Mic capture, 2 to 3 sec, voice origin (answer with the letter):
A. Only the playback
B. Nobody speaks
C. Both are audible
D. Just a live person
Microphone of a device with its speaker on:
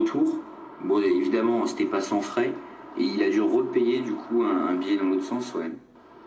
A